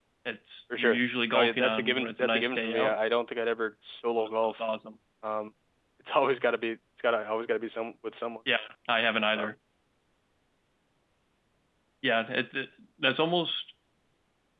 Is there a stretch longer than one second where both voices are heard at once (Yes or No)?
Yes